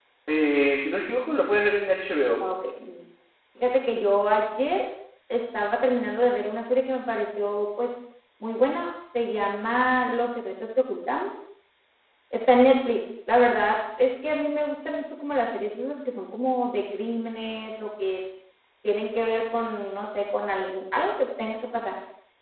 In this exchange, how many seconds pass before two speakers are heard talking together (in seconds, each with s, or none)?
none